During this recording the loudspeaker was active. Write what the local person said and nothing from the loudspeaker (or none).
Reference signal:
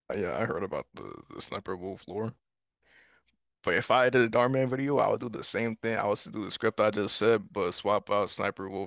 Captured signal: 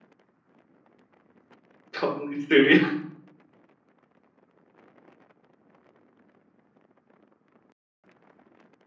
Totally Studio.